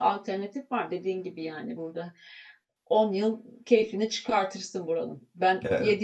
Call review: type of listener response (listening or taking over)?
listening